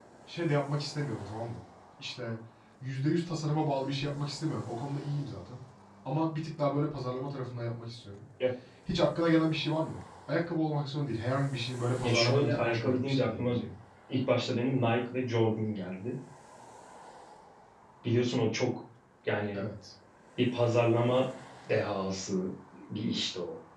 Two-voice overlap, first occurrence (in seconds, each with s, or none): 12.0 s